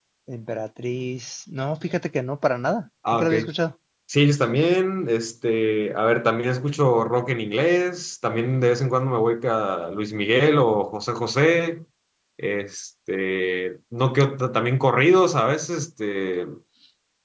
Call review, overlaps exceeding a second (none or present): none